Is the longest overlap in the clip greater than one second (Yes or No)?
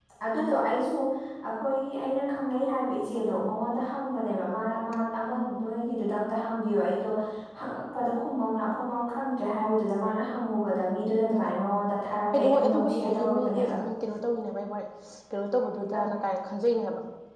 Yes